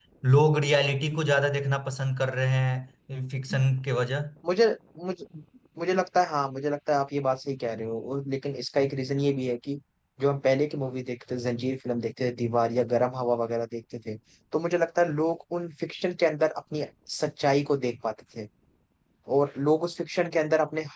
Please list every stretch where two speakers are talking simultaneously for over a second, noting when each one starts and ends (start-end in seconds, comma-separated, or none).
none